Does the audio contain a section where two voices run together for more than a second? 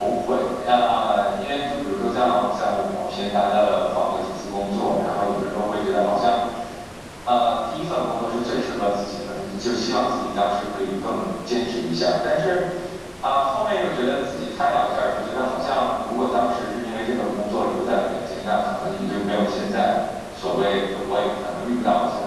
No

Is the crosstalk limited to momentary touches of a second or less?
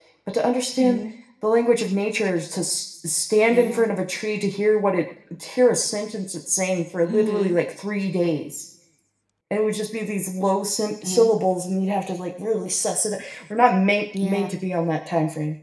Yes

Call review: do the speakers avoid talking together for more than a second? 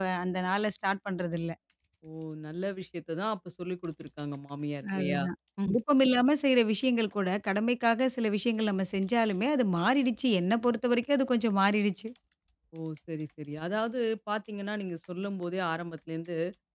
Yes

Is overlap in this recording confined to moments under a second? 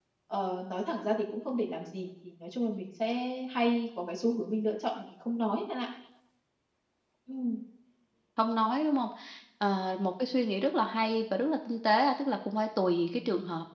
Yes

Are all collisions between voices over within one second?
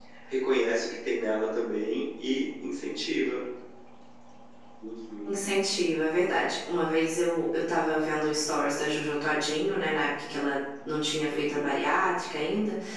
Yes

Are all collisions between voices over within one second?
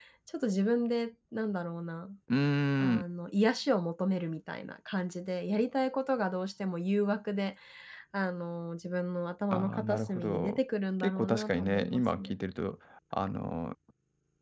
No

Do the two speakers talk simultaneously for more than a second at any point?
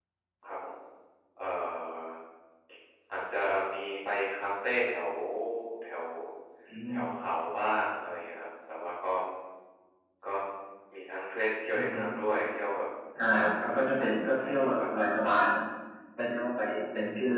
Yes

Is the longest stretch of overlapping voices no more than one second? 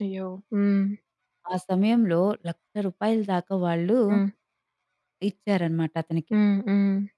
Yes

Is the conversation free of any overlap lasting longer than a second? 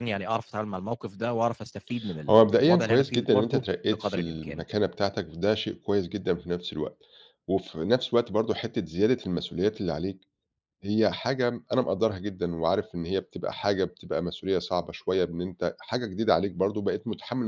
No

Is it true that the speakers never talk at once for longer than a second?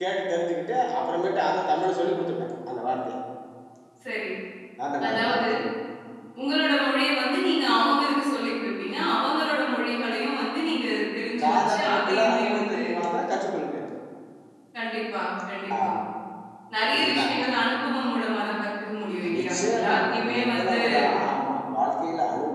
No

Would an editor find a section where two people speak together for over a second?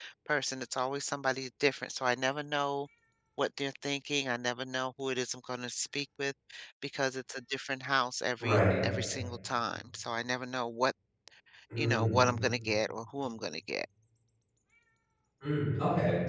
No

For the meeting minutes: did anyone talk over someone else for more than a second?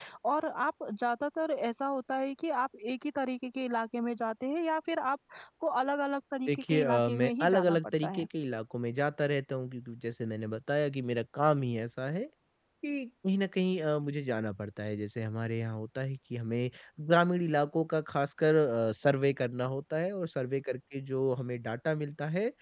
Yes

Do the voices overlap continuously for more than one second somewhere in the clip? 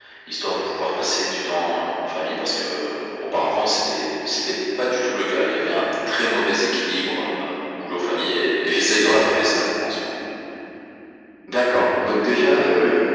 No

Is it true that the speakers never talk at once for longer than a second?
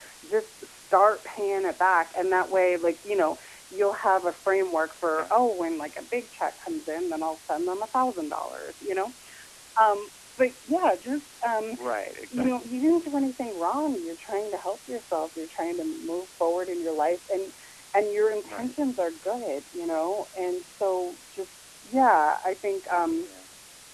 Yes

